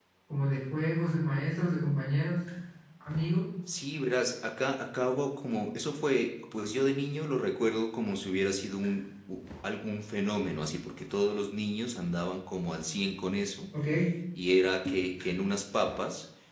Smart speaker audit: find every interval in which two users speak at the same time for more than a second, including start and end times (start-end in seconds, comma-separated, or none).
none